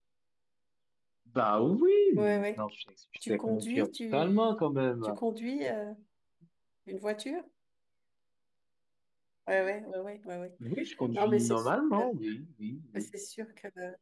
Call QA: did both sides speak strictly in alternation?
No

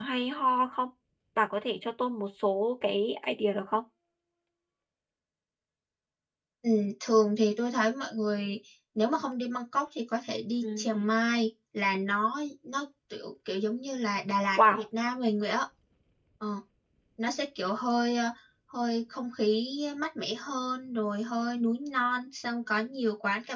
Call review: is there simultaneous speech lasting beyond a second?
No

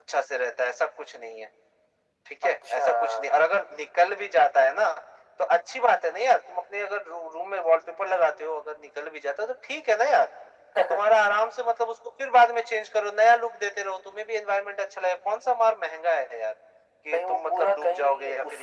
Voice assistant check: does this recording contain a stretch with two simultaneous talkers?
Yes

